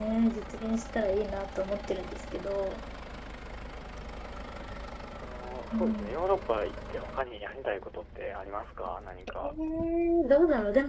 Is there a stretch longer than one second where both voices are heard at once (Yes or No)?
No